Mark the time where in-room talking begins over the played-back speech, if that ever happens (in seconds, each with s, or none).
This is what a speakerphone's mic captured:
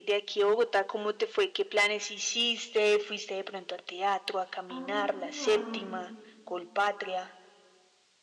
4.7 s